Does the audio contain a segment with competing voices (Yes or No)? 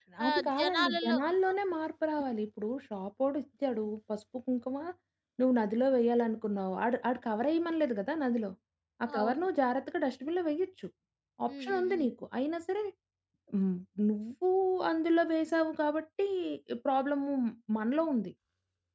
Yes